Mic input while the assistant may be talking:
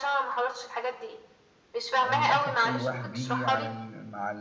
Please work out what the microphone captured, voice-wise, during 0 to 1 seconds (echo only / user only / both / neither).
echo only